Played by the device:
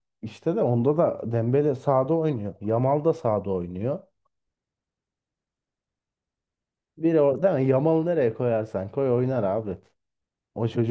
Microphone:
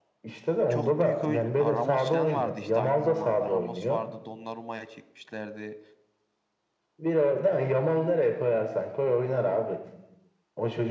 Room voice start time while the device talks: 1 s

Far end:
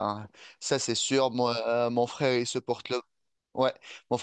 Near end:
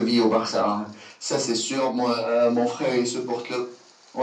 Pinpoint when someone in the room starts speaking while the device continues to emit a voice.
none

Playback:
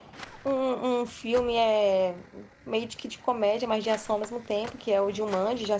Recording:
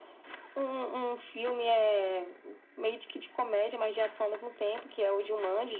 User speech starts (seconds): none

